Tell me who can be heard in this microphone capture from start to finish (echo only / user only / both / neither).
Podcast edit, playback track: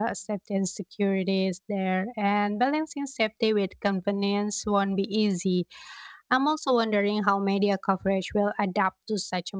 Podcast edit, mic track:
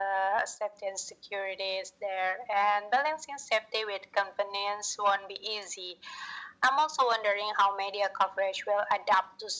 echo only